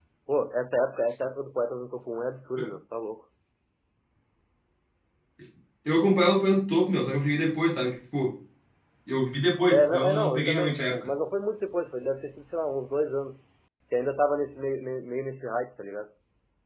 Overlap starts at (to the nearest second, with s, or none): 10 s